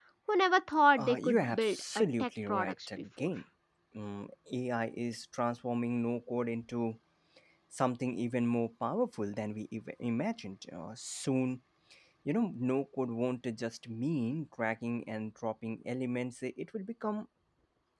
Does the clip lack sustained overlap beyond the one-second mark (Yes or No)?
No